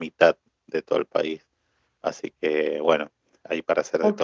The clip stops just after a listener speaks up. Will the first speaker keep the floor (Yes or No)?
No